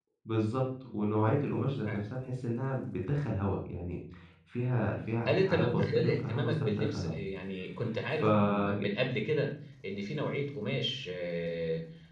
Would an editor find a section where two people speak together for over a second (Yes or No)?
Yes